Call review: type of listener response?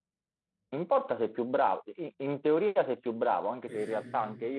listening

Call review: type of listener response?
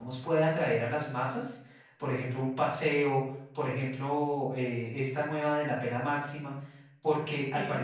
listening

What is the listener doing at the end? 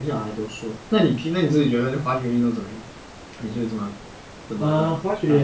taking over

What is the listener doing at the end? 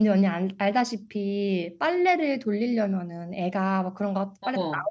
listening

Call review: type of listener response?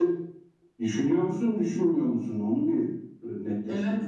taking over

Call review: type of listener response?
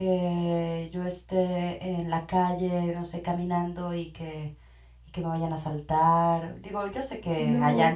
listening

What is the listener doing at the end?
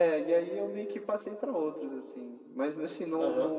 taking over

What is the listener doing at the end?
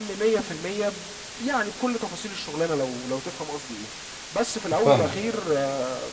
listening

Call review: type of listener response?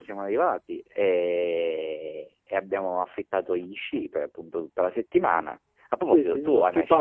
taking over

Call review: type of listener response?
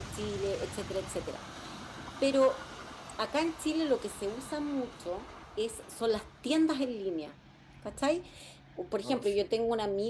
listening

